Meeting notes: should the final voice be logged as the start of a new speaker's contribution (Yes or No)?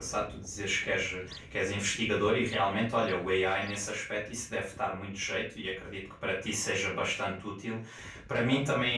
No